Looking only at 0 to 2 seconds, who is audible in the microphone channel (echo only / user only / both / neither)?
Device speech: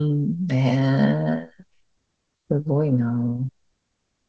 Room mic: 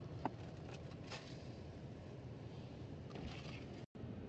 neither